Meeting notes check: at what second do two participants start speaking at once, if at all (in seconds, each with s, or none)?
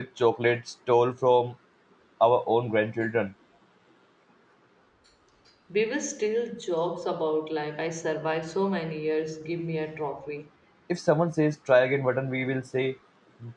none